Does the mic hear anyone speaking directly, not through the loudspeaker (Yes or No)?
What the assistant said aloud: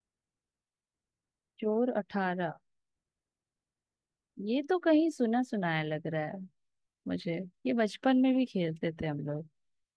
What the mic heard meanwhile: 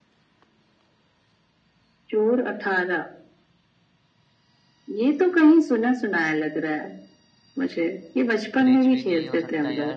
Yes